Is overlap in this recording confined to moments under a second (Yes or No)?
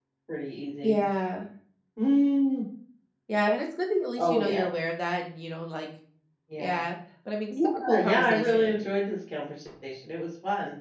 No